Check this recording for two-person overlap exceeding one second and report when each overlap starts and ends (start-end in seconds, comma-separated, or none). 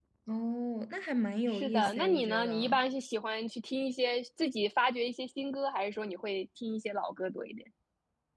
1.5-2.8